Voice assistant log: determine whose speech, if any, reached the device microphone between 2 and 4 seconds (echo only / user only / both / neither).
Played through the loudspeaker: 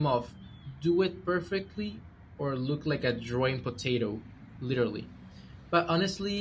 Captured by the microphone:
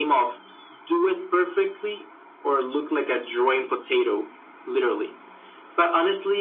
echo only